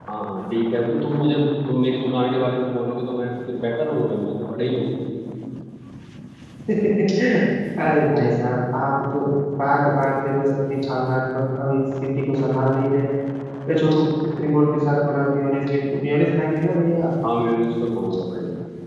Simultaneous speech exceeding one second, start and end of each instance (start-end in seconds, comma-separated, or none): none